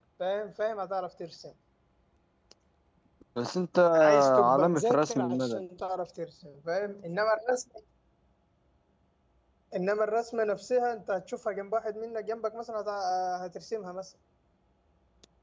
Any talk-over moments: Yes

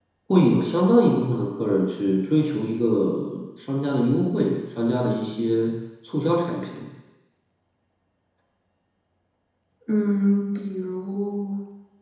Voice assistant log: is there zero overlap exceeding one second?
Yes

